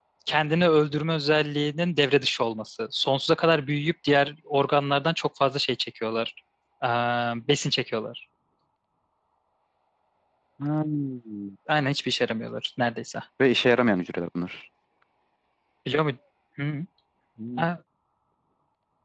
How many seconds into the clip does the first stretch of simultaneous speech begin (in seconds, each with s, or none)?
none